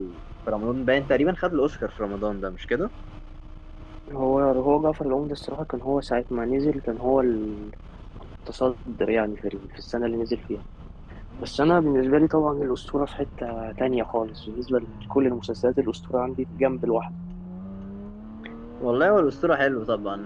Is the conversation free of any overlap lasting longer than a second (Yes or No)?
Yes